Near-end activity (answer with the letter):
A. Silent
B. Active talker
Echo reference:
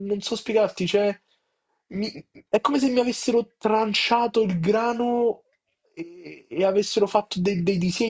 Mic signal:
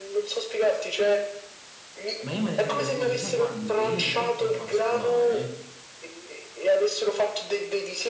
B